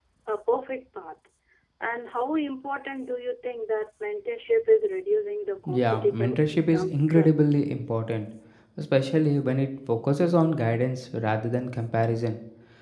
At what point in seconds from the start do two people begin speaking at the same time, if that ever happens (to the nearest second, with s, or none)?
6 s